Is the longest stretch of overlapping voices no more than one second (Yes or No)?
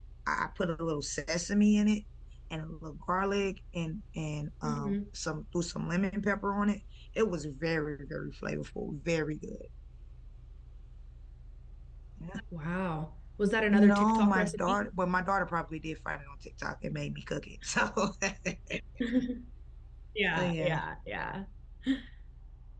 No